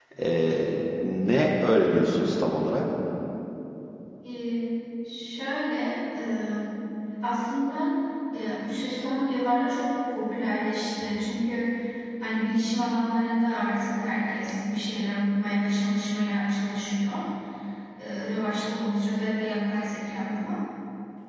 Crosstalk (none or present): none